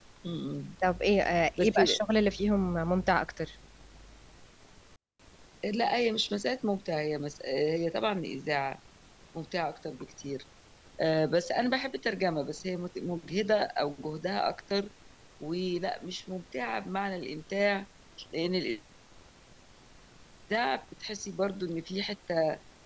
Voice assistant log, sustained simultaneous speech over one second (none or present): none